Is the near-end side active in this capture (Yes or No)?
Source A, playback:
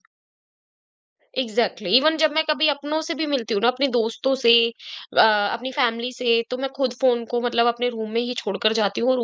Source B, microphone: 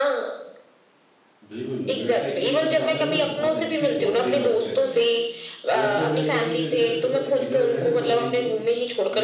Yes